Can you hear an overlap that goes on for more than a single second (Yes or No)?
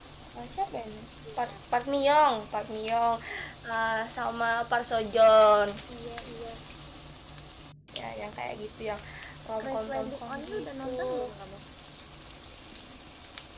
Yes